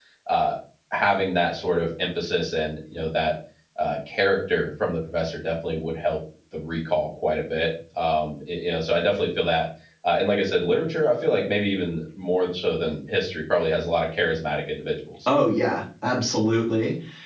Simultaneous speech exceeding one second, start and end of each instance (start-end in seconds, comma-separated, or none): none